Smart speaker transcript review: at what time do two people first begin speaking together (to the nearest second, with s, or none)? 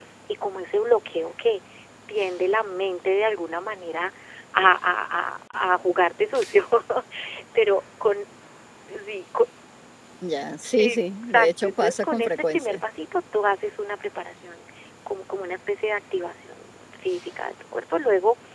11 s